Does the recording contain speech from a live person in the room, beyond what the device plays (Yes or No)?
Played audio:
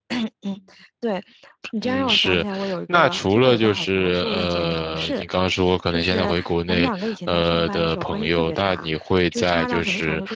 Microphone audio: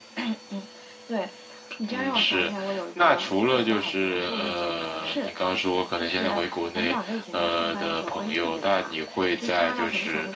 No